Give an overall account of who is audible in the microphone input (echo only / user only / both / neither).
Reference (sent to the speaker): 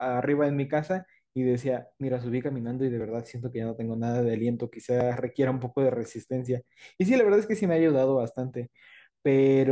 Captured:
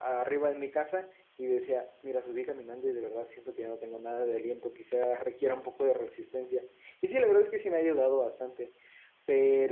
echo only